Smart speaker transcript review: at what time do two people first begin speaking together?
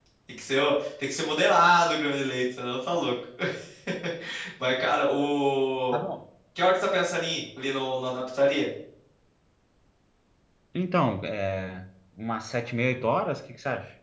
none

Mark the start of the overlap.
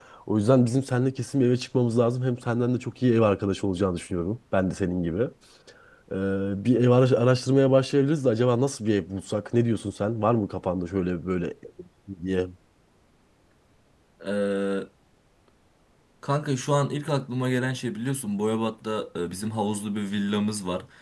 none

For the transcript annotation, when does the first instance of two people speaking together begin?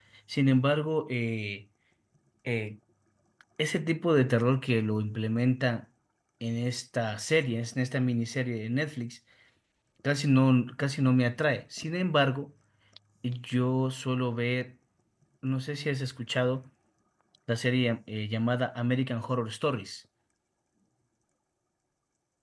none

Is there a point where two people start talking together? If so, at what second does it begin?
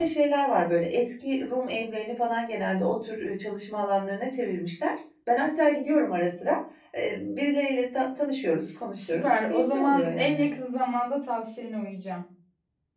9 s

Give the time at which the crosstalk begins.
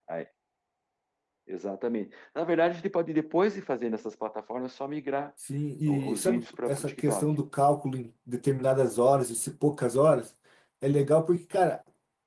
6 s

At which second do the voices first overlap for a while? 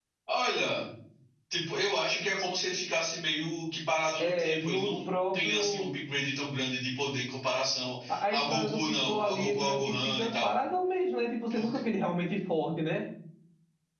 4 s

